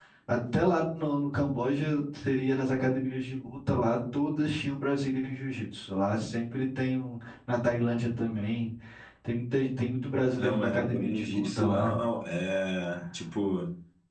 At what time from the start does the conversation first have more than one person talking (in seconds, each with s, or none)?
10.4 s